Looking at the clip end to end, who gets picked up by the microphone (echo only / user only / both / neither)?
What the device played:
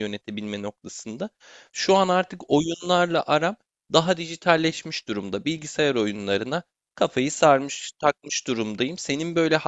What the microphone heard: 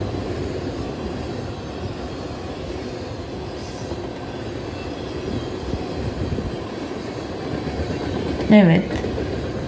user only